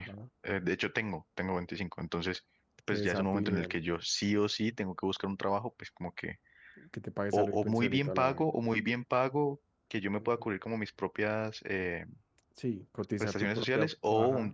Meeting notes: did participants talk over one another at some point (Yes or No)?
Yes